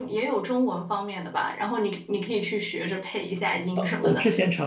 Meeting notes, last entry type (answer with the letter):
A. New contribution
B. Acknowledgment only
A